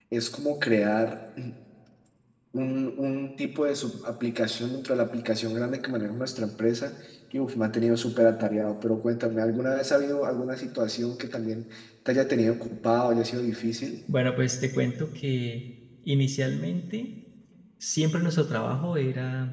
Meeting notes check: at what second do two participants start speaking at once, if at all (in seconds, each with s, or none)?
none